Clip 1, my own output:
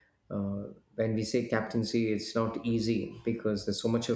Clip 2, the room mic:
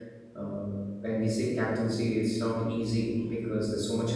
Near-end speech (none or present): none